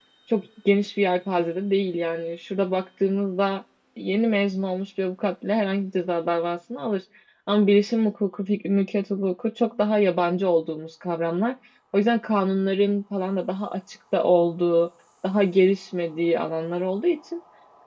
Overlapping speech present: No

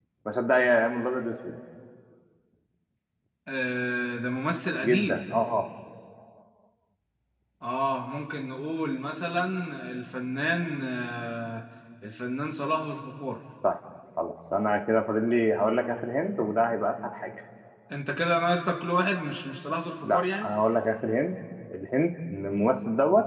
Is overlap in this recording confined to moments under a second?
Yes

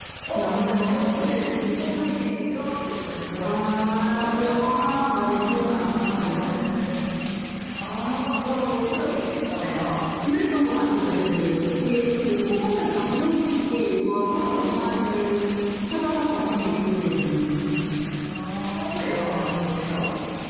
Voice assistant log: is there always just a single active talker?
No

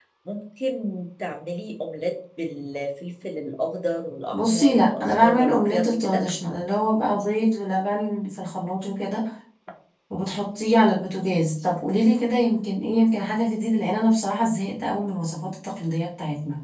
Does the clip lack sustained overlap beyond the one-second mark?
No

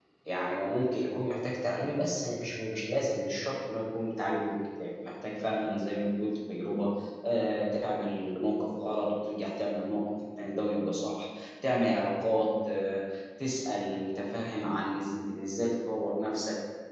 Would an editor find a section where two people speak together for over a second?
No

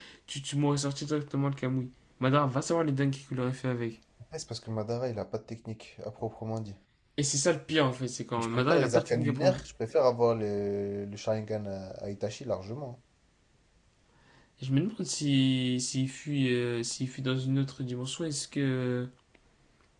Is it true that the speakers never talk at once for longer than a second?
No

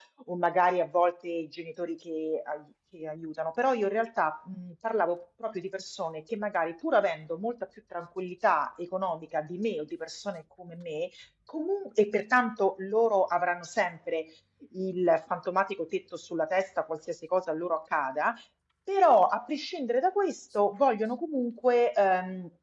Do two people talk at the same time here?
No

